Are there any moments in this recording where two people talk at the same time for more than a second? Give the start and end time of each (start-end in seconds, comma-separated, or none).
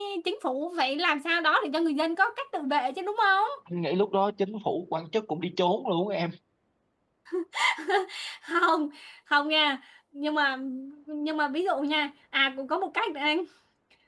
none